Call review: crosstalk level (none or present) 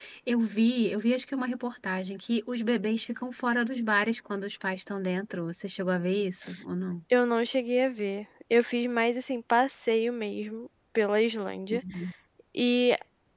none